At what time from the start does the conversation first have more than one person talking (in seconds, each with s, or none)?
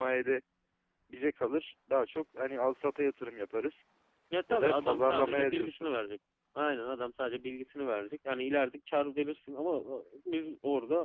4.5 s